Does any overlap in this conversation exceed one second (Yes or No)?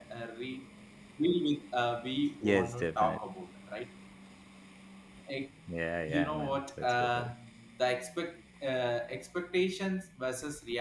Yes